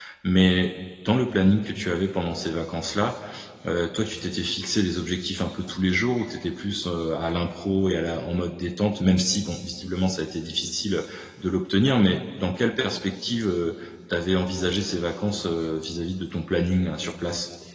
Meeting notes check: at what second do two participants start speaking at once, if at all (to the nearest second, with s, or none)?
none